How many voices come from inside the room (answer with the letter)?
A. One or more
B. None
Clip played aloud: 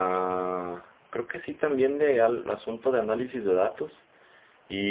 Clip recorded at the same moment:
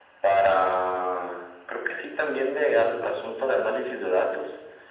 B